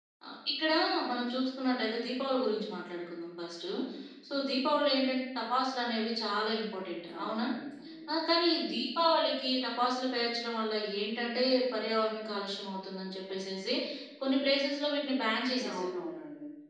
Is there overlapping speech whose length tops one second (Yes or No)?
No